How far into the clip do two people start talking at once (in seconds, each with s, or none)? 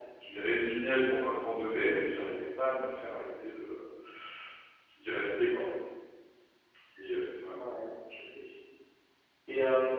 none